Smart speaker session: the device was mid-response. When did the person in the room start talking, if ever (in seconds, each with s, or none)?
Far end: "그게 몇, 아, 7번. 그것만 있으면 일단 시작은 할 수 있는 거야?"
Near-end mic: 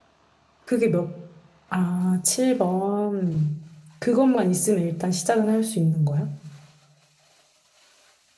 none